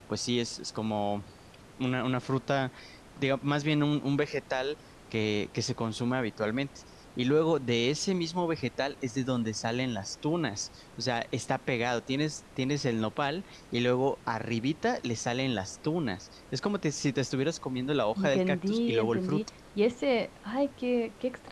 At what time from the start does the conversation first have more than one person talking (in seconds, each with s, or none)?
18.2 s